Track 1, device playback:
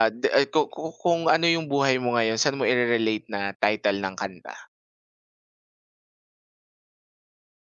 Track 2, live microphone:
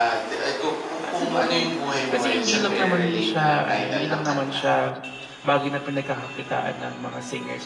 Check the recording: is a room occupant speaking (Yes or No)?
Yes